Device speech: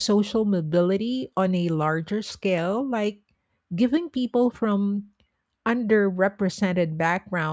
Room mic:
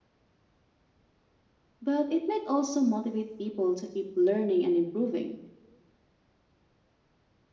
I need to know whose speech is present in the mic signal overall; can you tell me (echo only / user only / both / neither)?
user only